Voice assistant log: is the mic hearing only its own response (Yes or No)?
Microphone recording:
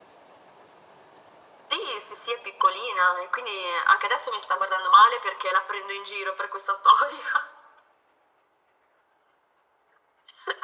Yes